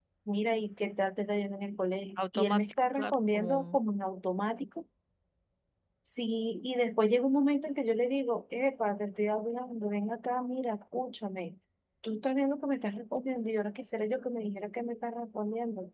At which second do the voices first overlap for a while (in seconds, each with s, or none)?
2.2 s